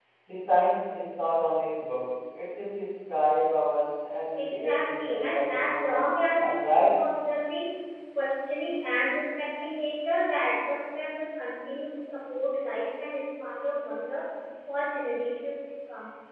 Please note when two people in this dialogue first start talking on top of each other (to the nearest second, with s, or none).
4 s